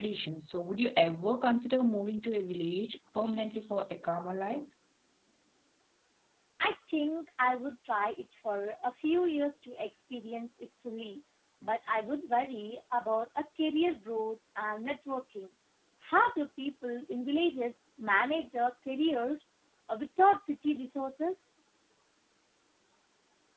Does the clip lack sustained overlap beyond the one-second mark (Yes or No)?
Yes